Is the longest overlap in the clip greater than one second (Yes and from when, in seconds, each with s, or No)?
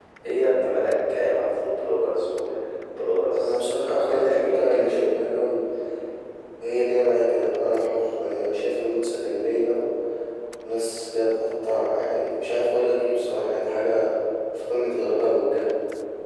Yes, from 3.4 s